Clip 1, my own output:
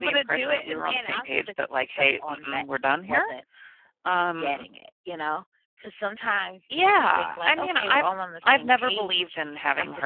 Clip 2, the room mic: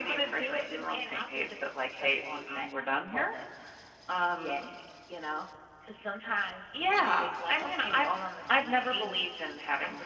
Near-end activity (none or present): present